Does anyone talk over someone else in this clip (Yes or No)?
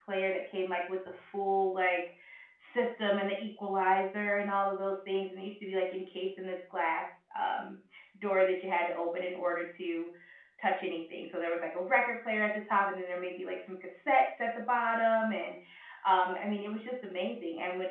No